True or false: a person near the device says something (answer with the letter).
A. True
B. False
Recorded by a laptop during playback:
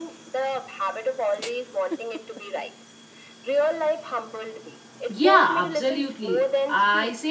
A